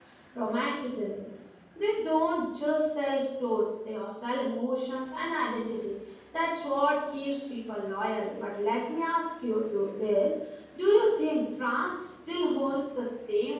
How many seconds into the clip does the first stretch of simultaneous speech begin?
none

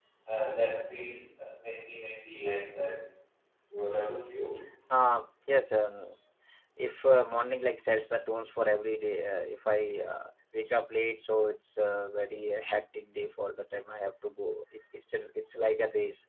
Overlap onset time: none

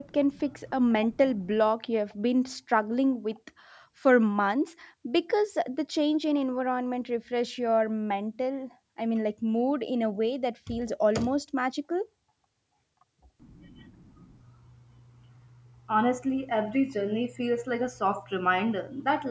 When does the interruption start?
none

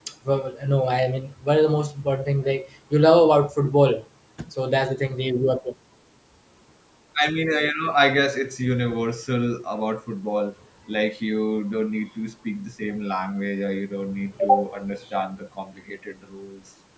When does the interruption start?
none

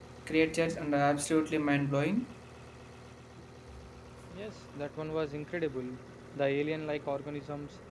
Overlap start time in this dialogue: none

